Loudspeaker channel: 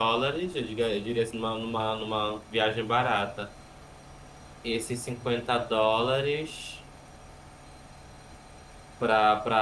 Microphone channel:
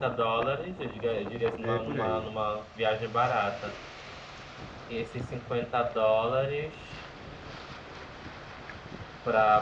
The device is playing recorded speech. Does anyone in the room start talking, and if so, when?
1.6 s

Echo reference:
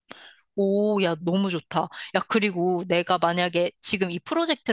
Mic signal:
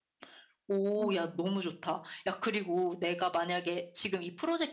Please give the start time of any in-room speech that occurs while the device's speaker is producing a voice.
1.0 s

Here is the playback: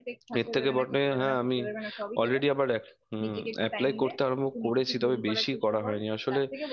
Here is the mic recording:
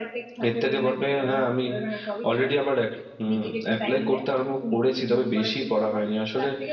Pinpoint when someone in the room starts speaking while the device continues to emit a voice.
none

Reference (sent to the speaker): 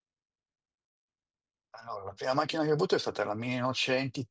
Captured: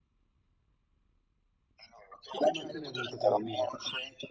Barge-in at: 2.3 s

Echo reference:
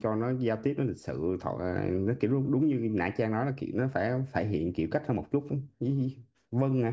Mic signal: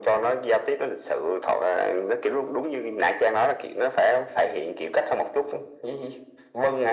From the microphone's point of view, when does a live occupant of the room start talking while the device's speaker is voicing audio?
none

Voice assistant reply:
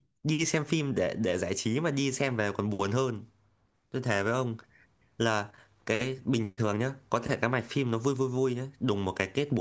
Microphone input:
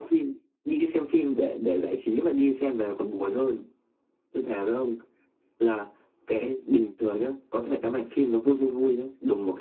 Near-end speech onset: none

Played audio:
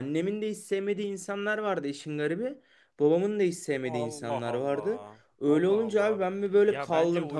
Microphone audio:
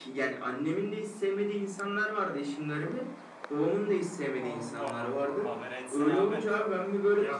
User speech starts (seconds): 5.4 s

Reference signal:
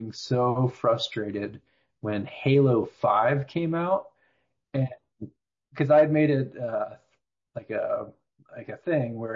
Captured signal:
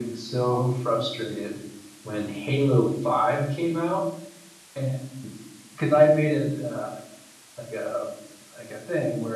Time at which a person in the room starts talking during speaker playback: none

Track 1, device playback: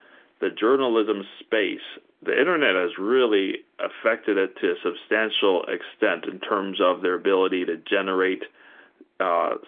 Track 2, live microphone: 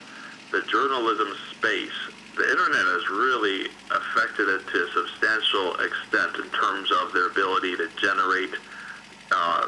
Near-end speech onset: none

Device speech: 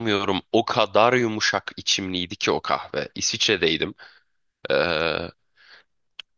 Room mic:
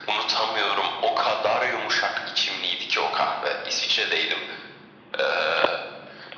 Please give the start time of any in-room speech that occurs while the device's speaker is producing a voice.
none

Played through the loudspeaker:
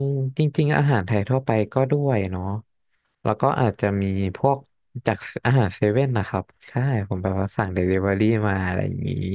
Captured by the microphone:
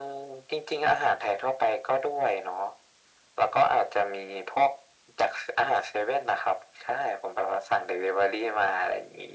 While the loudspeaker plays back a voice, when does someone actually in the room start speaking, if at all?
none

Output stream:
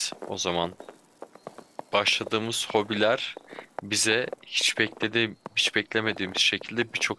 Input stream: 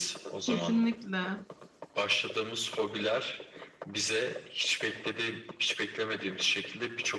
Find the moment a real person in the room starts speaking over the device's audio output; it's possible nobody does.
0.4 s

